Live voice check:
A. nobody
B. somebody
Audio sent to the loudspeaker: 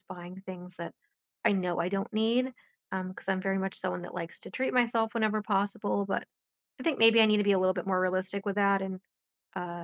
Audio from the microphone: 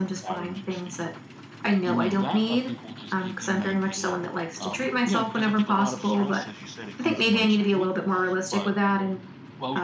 B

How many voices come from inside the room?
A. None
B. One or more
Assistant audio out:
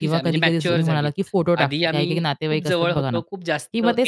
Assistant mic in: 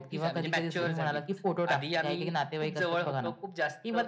A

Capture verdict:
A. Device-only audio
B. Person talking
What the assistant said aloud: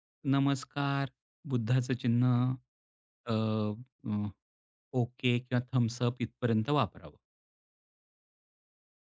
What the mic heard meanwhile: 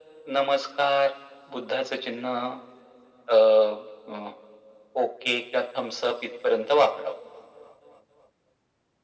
A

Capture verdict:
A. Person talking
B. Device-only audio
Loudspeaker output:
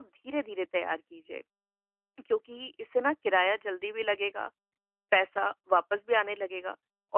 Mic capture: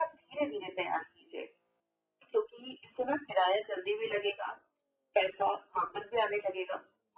B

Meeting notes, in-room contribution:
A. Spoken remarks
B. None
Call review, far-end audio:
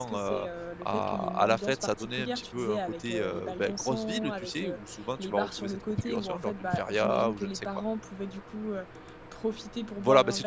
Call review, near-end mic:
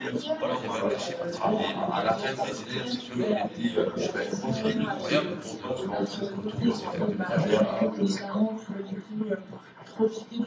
A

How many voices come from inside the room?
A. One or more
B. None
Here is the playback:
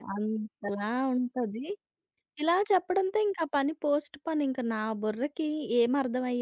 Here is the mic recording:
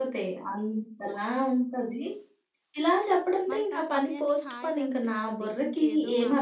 A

